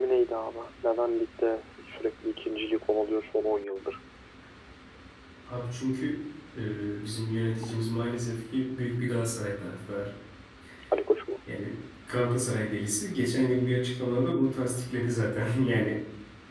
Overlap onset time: none

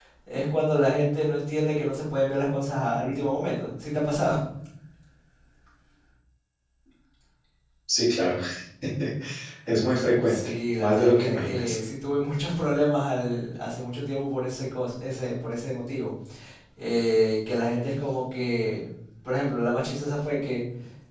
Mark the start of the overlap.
10.2 s

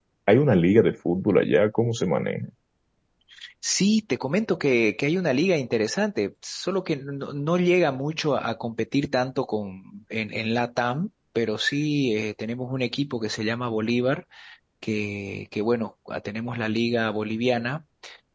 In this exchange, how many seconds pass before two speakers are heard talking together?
none

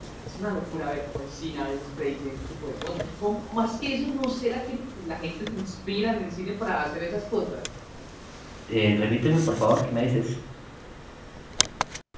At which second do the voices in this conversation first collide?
none

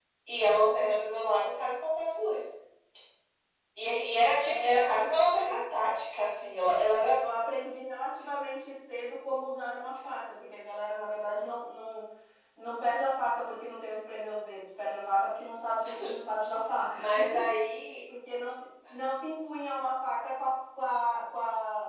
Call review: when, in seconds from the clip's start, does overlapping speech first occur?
4.4 s

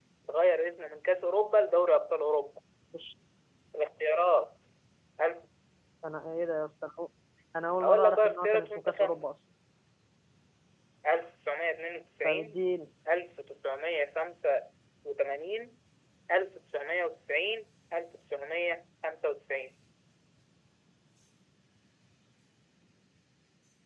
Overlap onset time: 7.7 s

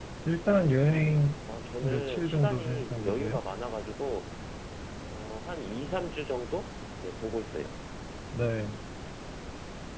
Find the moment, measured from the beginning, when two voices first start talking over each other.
1.8 s

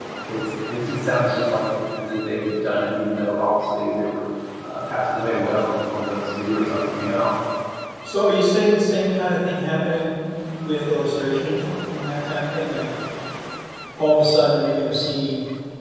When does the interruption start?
none

